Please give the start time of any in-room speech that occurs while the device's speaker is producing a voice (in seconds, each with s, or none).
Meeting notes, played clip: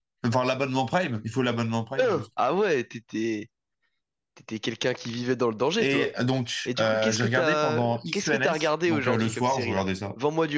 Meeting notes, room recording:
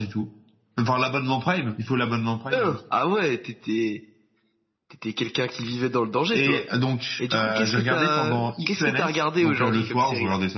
none